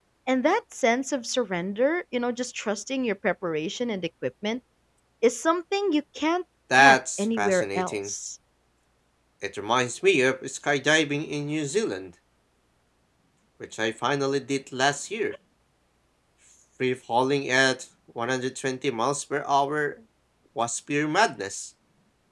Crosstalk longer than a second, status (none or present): present